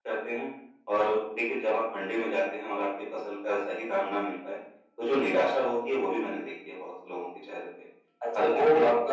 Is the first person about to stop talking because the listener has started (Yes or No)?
Yes